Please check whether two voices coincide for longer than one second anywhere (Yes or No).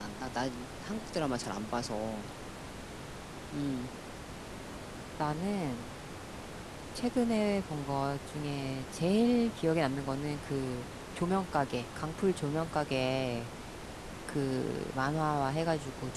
No